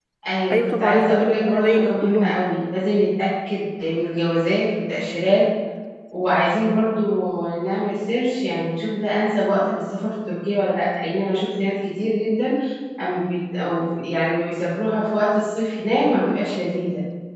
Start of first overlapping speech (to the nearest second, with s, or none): 1 s